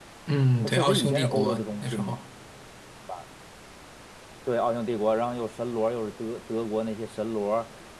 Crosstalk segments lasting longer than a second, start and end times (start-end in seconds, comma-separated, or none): 0.6-2.2